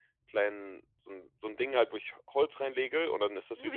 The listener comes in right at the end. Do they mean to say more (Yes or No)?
No